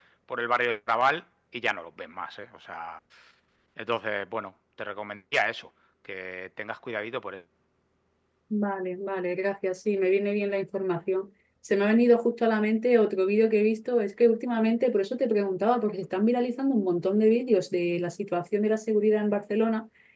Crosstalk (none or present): none